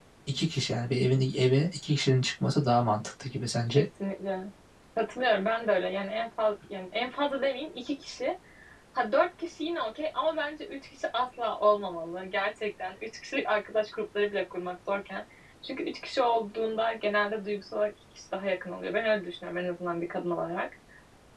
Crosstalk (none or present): none